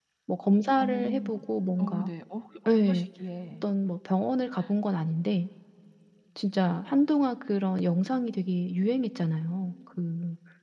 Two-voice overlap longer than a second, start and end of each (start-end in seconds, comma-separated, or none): none